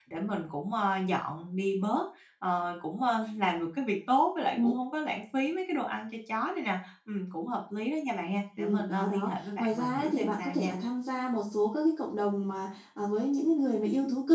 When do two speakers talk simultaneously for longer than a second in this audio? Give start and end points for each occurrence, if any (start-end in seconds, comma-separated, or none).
8.6-10.7